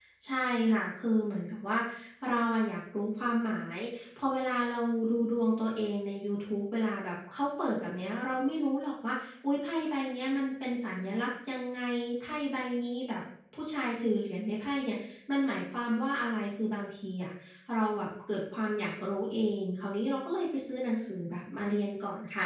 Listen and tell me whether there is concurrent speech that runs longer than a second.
No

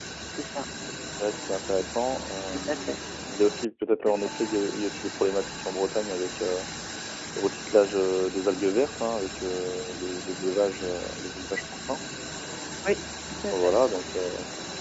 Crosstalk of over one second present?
No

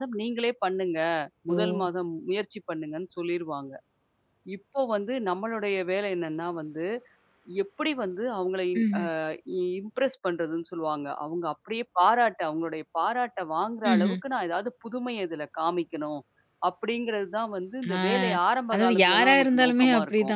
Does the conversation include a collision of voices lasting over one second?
Yes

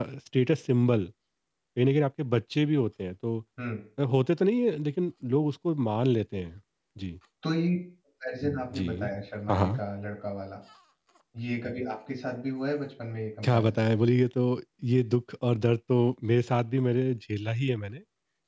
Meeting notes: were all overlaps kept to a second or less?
Yes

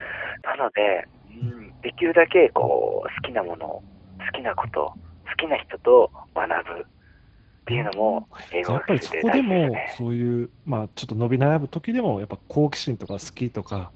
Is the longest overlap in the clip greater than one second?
Yes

